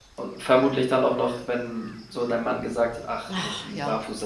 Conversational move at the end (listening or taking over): listening